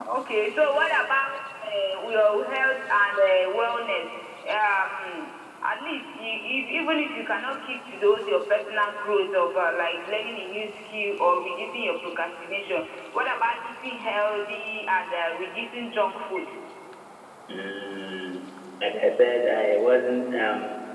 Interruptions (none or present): none